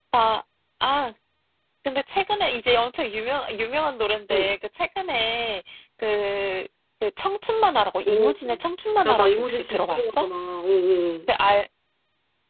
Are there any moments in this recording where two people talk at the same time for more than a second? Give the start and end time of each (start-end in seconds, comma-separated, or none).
9.1-10.3